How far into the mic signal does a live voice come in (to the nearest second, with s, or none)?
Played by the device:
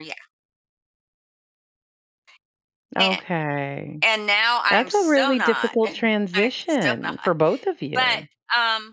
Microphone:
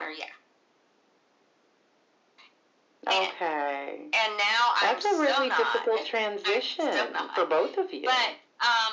none